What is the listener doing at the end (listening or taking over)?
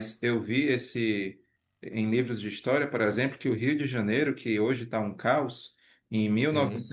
listening